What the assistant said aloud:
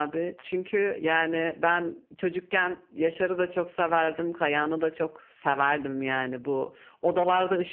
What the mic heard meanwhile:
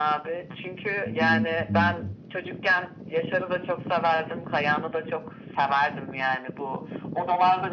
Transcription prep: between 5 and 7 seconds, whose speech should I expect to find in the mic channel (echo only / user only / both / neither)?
echo only